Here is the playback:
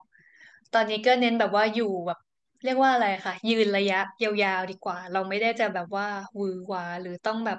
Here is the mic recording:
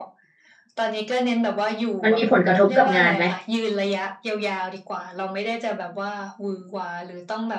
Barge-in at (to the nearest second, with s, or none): 2 s